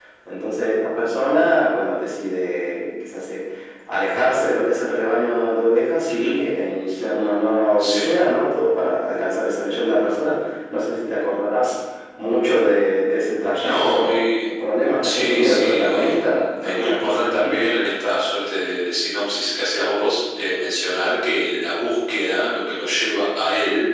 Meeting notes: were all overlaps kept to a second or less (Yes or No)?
No